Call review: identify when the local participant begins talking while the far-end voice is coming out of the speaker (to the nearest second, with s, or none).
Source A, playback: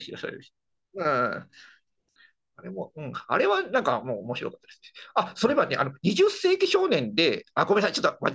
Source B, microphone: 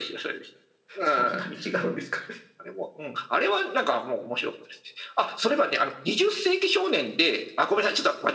1 s